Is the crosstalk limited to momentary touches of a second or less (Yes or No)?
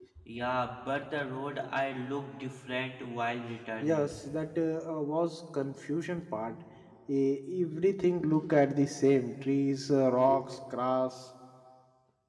Yes